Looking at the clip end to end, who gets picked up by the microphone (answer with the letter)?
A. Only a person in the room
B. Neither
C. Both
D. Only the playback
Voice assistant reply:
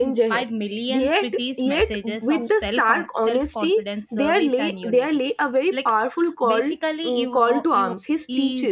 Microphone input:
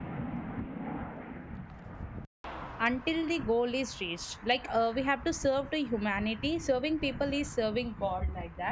A